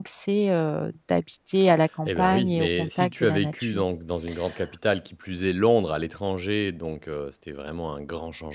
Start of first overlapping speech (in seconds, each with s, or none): 2.0 s